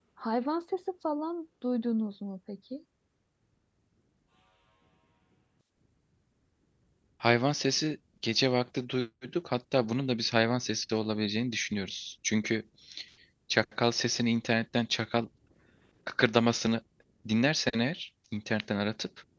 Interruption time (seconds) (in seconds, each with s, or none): none